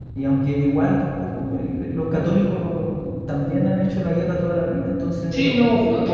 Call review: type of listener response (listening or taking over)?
taking over